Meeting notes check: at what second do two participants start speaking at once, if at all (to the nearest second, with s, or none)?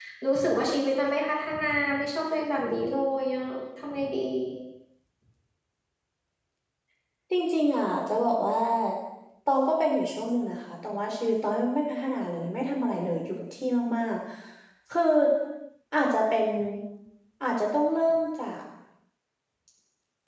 none